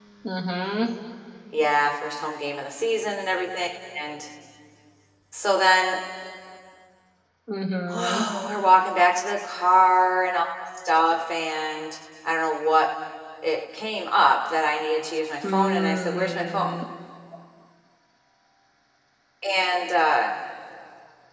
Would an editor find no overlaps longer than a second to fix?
No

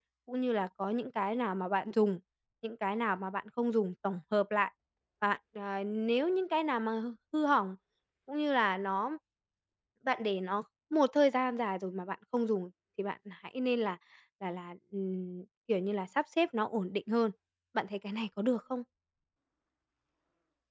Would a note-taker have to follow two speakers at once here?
No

